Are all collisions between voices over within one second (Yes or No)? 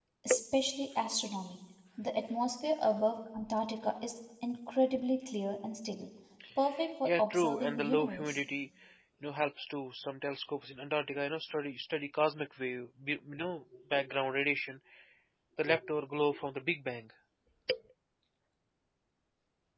No